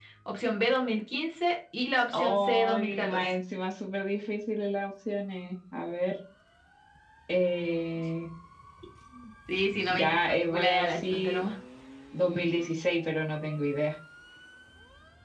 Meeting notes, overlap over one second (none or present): present